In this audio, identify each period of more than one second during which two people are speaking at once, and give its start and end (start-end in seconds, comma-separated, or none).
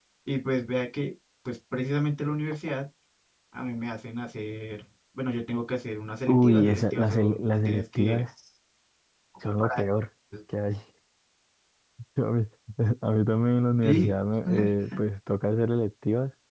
6.3-8.2